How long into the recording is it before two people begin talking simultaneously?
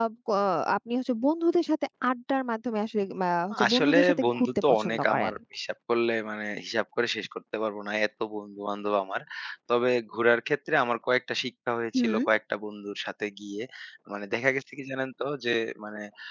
3.7 s

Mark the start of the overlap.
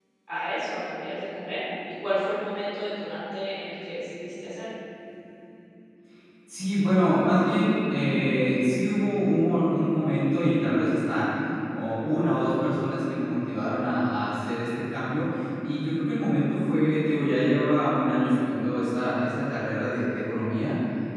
none

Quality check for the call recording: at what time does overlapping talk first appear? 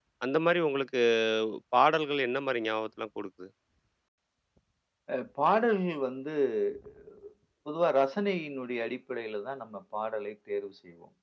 none

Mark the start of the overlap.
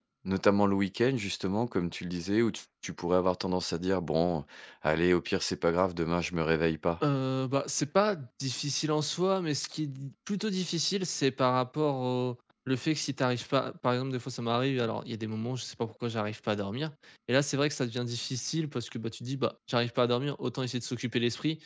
none

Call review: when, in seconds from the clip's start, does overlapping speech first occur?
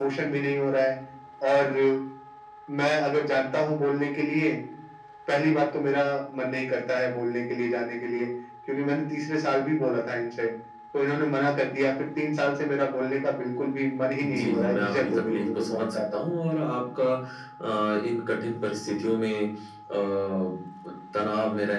14.2 s

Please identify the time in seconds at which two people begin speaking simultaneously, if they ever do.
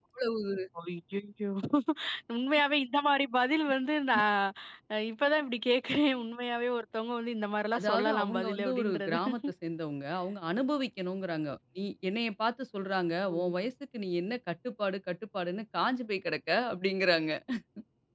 7.7 s

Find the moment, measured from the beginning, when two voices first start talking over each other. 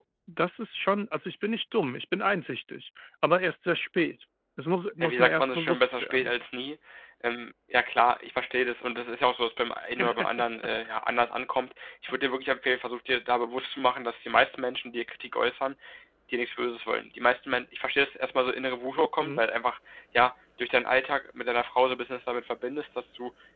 5.0 s

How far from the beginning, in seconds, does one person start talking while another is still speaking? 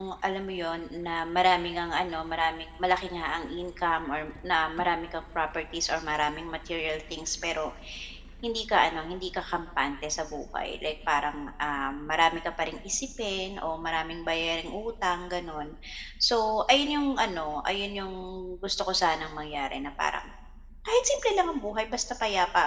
none

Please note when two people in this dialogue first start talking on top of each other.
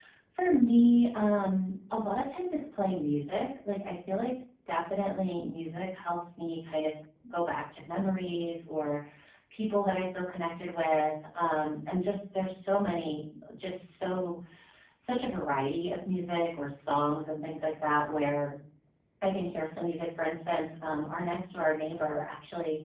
none

